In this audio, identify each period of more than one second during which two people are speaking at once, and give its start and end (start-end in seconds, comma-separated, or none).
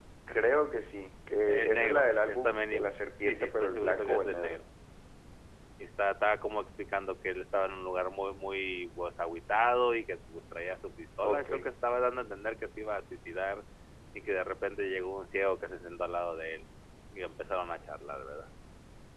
1.5-4.6